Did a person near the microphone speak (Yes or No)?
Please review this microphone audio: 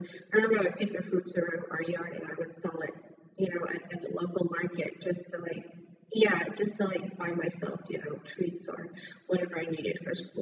No